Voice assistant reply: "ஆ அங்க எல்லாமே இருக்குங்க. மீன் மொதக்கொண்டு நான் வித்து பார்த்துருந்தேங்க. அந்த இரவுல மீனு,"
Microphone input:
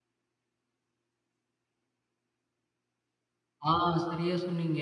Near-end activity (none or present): present